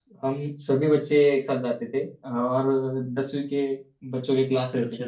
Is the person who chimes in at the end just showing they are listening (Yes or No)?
Yes